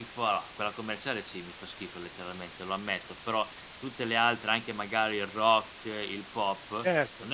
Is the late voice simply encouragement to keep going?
Yes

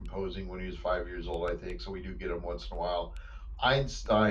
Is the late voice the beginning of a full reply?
No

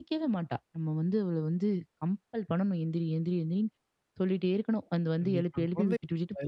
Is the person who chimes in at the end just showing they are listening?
No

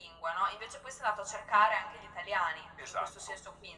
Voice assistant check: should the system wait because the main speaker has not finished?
No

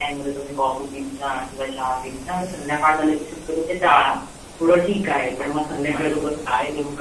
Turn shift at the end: Yes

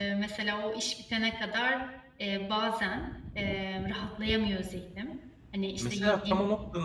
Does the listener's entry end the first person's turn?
Yes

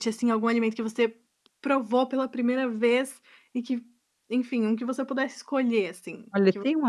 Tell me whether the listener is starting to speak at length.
Yes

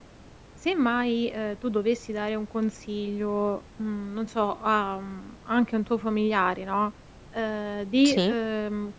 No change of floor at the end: Yes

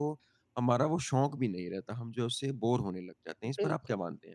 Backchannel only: No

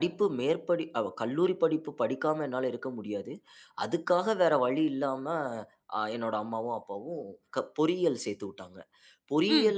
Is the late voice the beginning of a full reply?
No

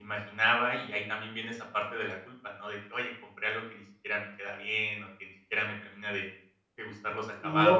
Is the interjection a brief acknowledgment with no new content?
No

